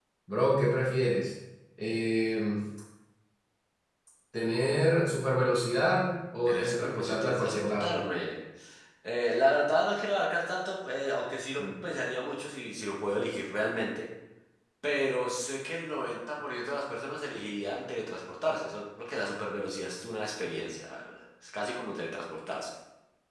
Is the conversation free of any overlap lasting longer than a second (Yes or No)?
No